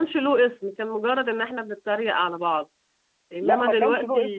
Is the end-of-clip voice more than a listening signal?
Yes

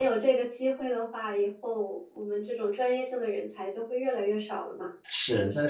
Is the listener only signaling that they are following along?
No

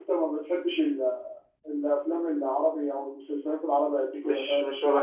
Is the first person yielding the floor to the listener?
Yes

